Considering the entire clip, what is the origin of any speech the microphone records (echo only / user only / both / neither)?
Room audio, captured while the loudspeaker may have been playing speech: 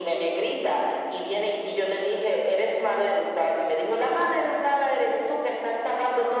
echo only